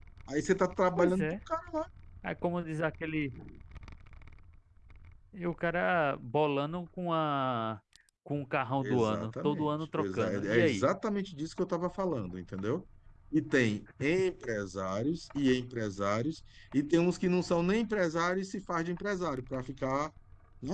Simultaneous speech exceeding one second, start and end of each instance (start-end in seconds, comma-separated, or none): 8.8-10.9